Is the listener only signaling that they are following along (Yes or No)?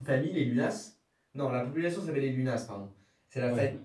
Yes